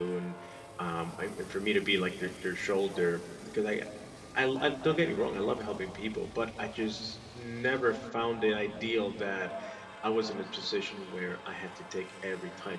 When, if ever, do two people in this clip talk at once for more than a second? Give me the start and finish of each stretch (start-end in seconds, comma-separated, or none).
none